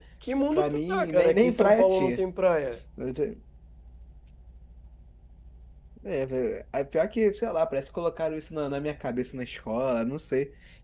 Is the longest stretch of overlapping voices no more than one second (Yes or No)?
No